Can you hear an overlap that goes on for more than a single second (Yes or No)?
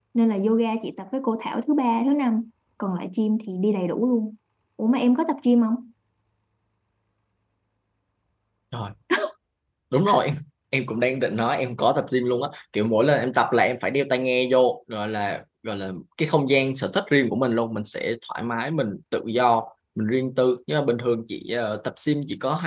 No